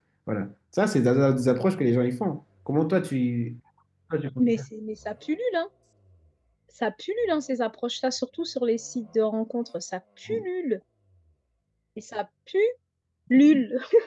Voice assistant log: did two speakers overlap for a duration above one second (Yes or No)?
No